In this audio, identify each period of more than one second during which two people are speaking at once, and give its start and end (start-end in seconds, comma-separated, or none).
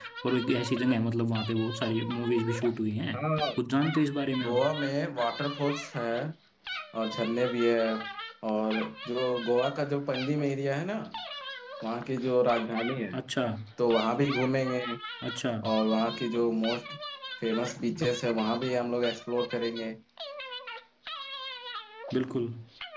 none